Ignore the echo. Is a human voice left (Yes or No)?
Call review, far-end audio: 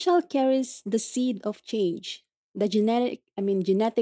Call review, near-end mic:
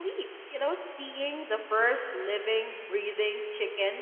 Yes